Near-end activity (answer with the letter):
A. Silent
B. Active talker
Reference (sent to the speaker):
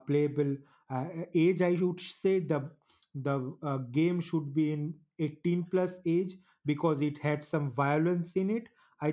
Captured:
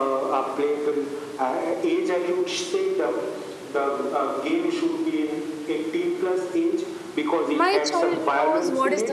B